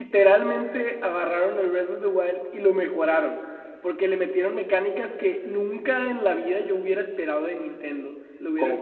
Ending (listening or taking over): listening